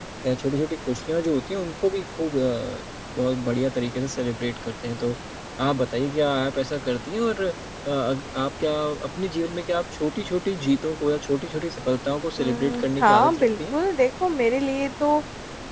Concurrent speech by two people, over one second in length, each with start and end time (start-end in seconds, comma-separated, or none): 12.4-13.7